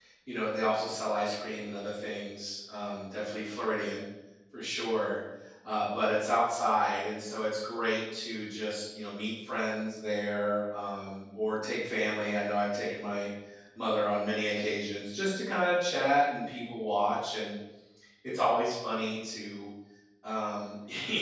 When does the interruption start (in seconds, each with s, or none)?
none